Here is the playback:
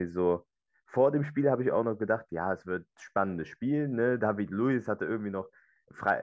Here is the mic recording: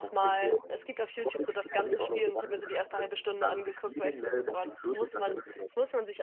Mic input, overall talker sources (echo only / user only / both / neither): both